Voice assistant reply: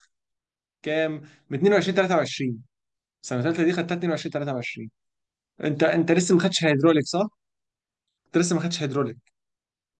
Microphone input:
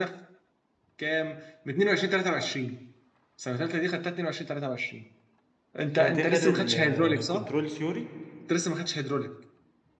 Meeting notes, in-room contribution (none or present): present